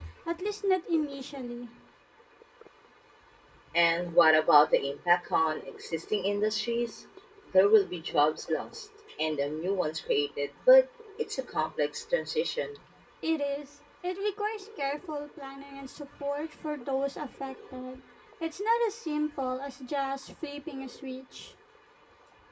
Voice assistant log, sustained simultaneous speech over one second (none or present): none